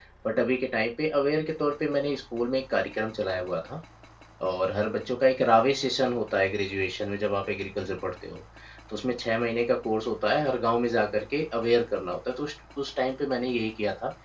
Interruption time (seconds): none

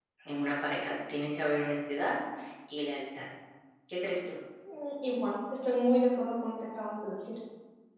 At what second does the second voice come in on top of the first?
none

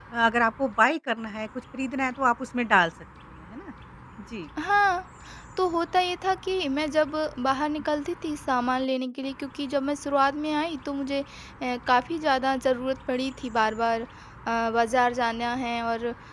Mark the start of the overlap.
none

